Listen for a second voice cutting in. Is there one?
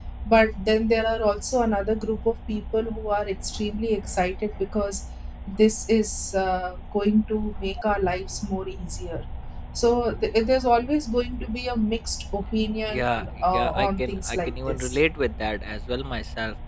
Yes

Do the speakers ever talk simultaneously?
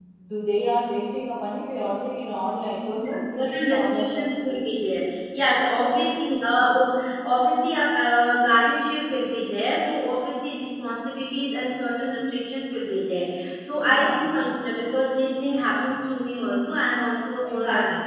Yes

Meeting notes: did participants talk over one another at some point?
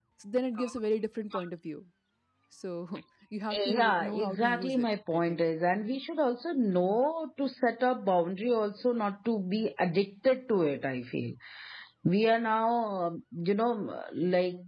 Yes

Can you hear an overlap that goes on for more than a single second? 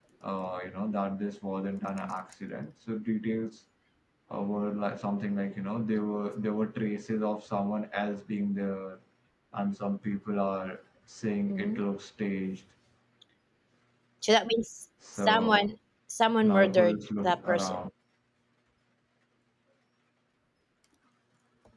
Yes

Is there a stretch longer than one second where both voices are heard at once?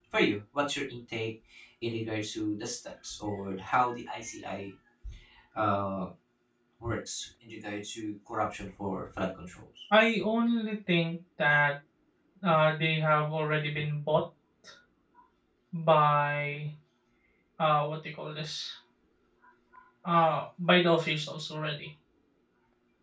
No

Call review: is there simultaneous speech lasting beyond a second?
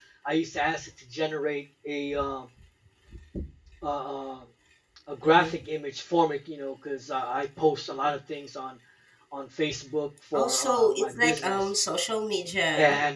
Yes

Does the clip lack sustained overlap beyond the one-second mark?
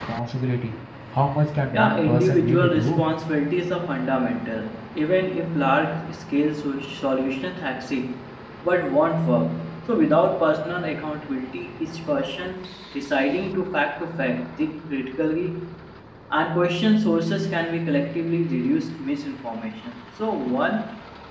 No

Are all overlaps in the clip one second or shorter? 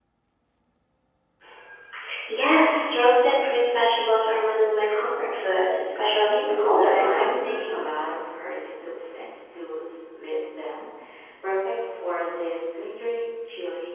No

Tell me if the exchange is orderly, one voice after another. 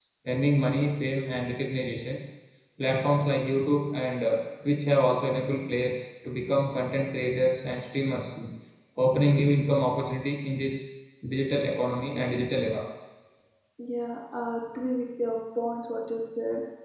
Yes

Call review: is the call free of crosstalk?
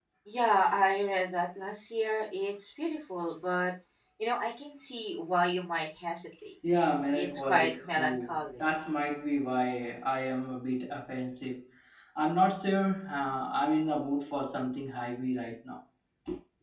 No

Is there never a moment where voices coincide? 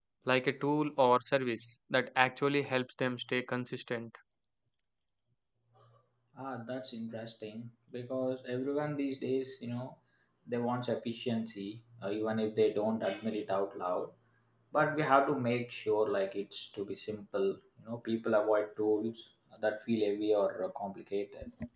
Yes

